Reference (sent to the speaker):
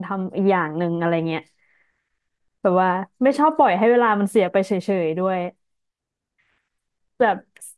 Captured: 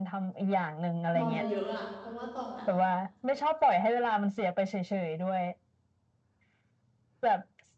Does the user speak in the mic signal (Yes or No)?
Yes